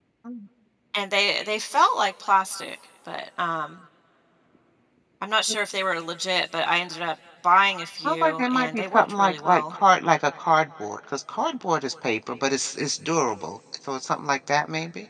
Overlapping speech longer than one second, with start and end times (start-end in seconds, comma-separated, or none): 8.0-9.7